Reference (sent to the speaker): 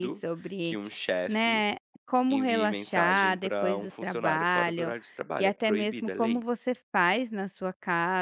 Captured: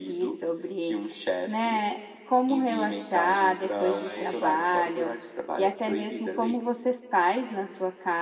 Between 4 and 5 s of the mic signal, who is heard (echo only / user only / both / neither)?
both